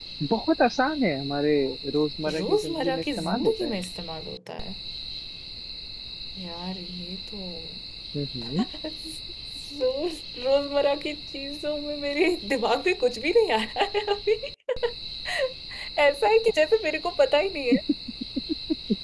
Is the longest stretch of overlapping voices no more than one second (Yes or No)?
No